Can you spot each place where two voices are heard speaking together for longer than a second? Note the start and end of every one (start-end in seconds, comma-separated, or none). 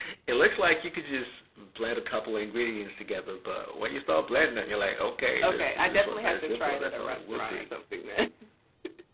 5.4-7.7